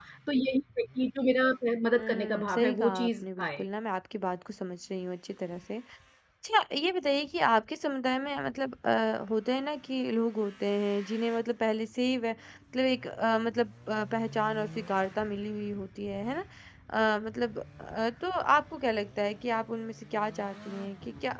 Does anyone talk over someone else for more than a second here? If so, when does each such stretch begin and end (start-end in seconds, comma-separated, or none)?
2.0-3.6